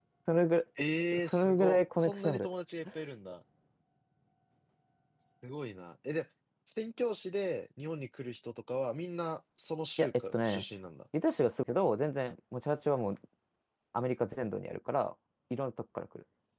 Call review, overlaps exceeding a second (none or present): present